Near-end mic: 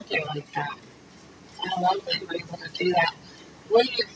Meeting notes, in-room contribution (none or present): none